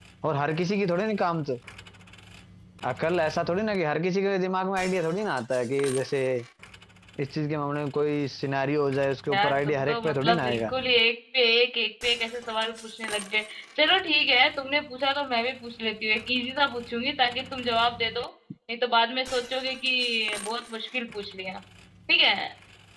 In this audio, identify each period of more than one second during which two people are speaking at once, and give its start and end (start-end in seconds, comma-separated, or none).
9.3-10.7